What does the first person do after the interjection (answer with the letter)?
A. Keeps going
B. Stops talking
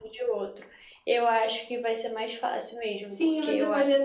B